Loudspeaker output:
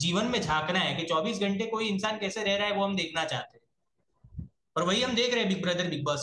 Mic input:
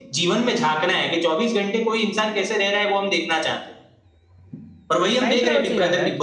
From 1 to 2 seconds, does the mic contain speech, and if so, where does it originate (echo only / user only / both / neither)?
echo only